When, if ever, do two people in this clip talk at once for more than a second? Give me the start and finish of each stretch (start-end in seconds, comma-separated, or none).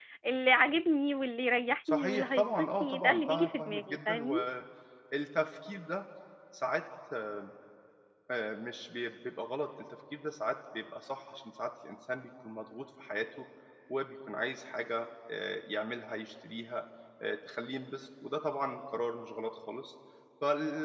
1.9-4.2